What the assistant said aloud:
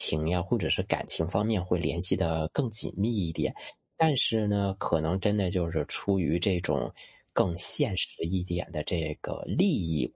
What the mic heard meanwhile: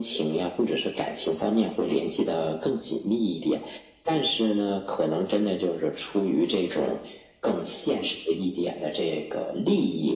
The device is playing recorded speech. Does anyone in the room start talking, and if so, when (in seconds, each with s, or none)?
none